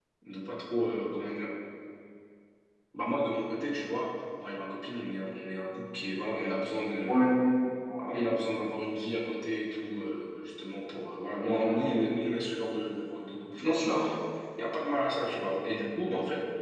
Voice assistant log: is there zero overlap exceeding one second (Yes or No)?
Yes